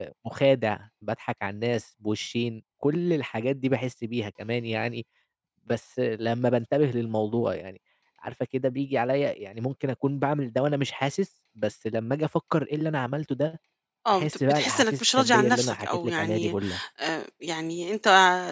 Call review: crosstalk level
present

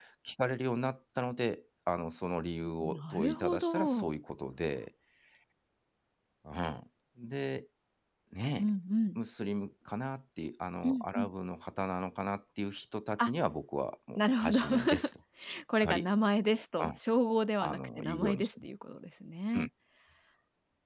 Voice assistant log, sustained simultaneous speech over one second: present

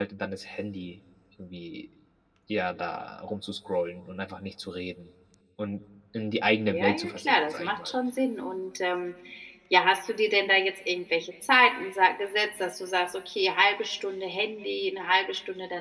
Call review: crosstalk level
present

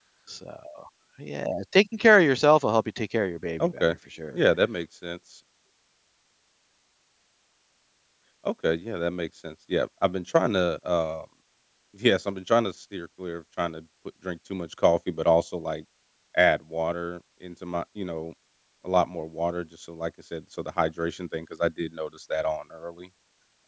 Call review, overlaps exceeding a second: none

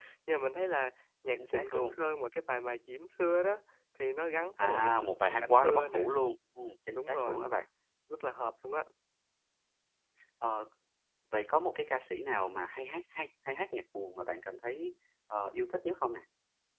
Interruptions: present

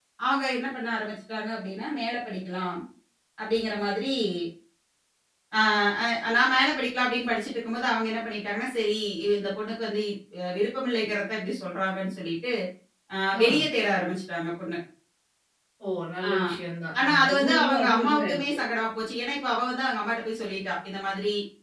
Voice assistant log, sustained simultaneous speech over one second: present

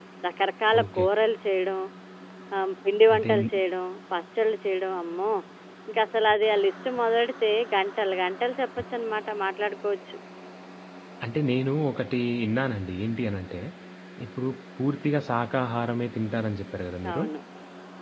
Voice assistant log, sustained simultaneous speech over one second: none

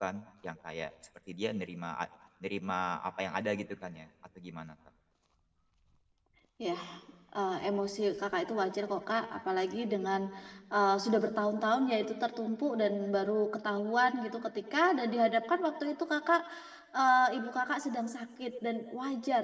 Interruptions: none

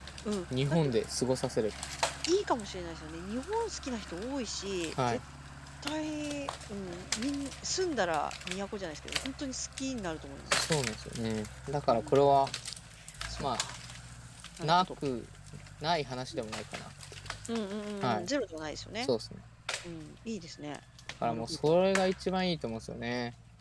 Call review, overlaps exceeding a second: none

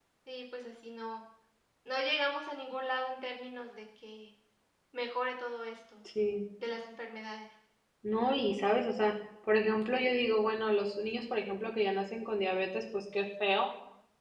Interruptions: none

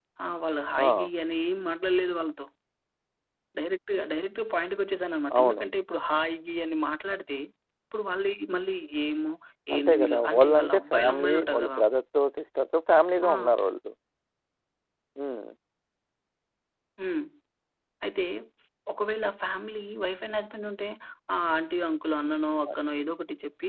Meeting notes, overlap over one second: present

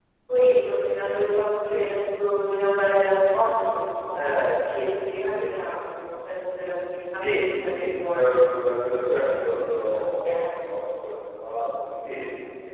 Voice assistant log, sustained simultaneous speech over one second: present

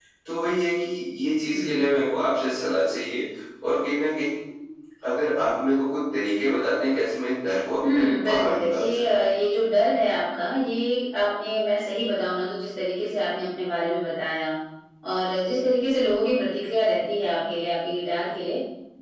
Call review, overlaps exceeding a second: present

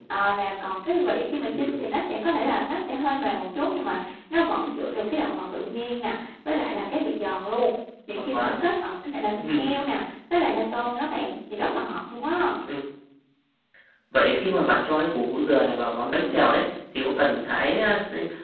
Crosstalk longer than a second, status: none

